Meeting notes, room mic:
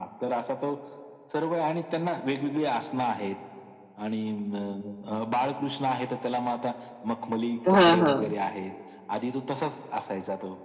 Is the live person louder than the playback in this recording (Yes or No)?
Yes